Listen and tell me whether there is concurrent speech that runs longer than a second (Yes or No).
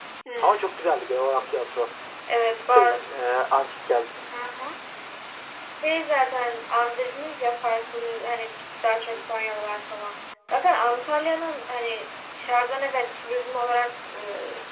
No